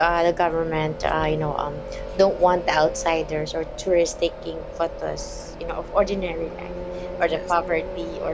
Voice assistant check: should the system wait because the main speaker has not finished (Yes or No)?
Yes